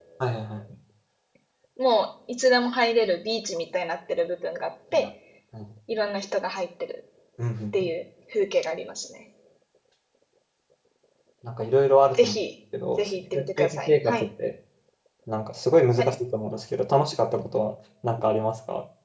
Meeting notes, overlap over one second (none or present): present